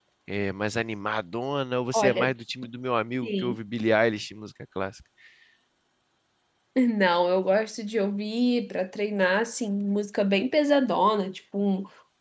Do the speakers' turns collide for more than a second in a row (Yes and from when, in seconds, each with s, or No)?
No